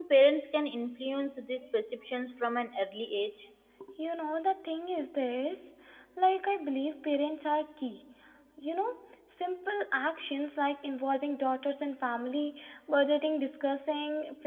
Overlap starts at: none

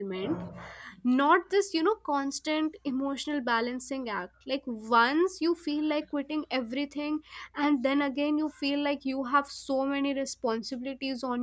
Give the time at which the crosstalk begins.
none

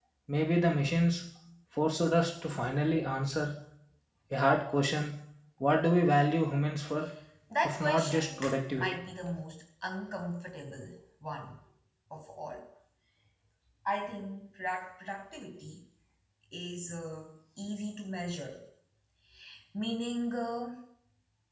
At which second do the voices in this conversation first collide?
7.6 s

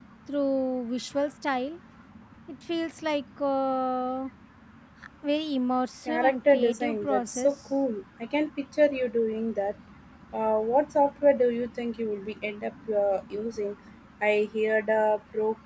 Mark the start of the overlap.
6.0 s

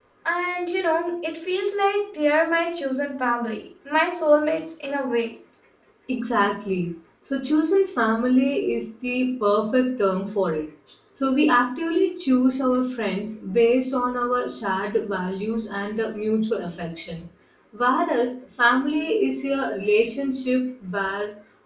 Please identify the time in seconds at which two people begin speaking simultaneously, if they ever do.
none

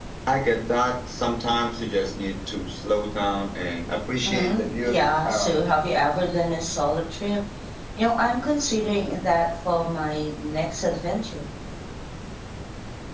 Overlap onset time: 4.2 s

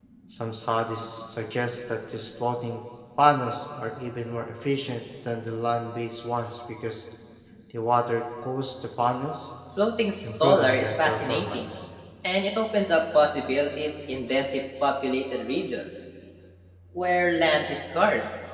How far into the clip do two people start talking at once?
10.2 s

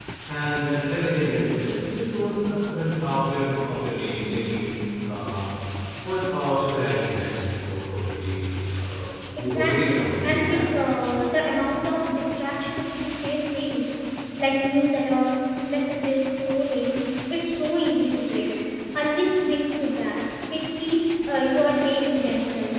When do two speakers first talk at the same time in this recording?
9.3 s

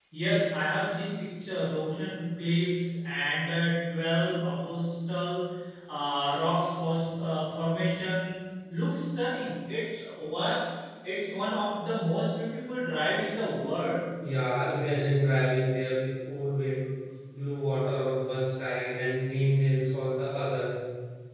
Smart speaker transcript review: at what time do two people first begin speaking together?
none

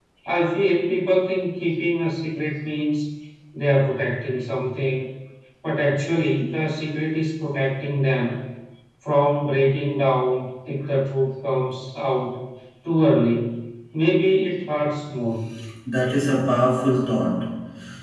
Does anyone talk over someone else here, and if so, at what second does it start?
none

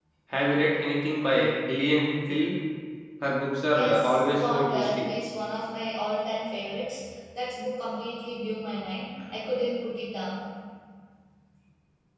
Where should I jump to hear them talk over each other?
3.7 s

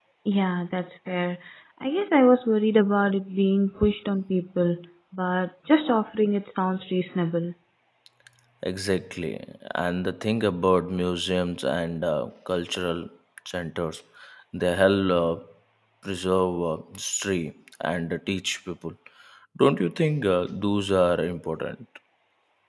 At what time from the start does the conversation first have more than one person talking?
none

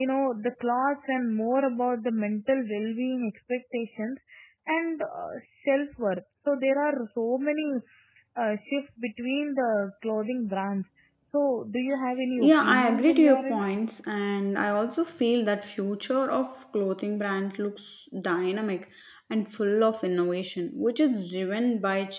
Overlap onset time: 12.4 s

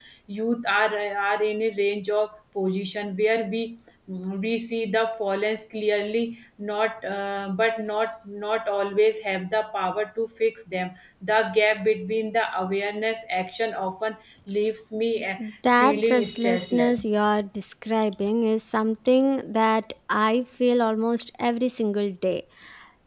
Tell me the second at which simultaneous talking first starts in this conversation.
15.8 s

